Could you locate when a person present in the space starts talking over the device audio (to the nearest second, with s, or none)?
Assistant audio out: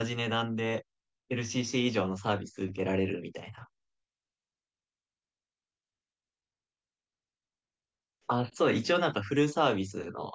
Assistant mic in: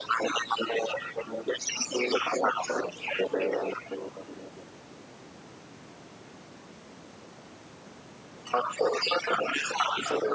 none